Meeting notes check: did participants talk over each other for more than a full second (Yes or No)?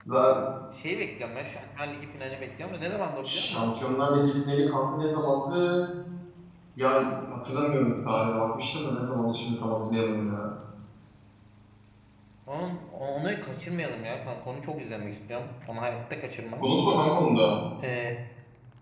No